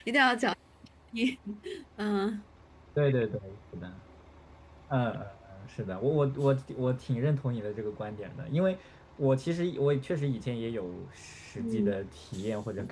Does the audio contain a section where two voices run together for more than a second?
No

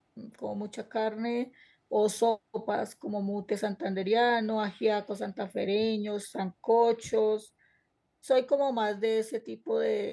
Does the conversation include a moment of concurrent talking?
No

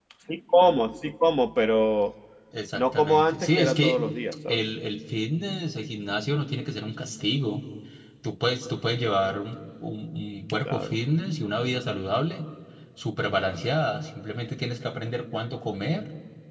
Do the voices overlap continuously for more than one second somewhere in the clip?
Yes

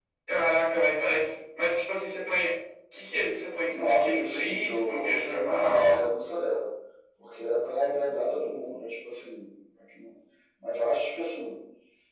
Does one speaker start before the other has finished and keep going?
Yes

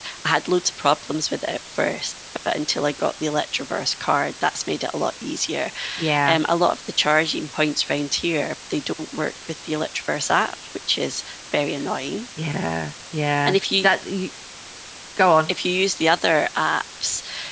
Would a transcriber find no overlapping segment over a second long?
Yes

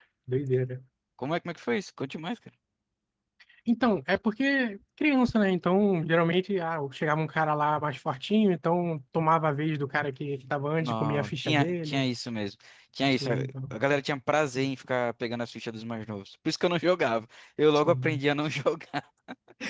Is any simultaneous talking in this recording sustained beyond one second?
Yes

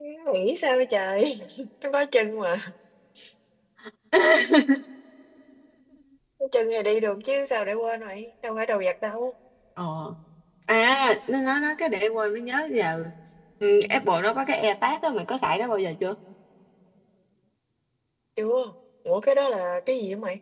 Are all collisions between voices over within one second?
Yes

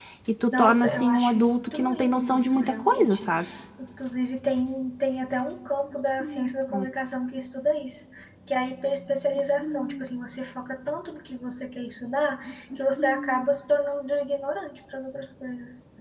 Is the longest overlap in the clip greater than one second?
Yes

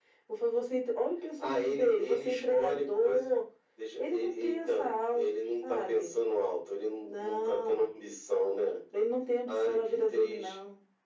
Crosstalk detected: Yes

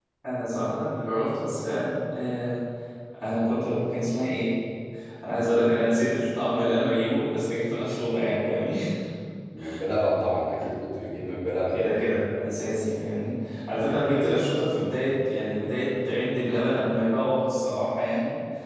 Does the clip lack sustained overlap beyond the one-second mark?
Yes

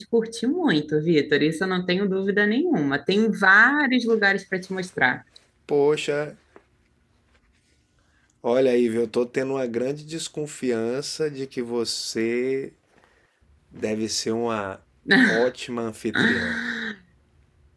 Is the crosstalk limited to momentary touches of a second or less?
Yes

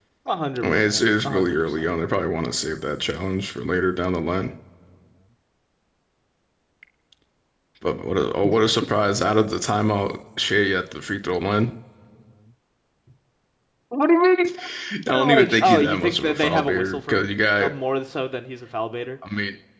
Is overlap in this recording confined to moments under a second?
No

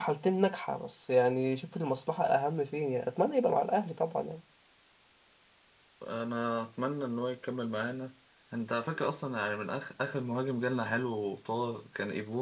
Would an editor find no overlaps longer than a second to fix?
Yes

